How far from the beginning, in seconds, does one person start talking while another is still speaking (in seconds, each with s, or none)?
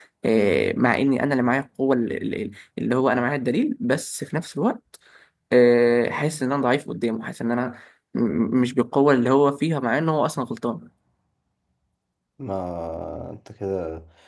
none